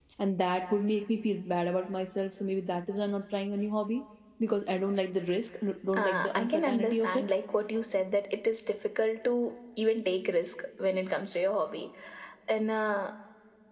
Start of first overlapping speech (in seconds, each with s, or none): 5.9 s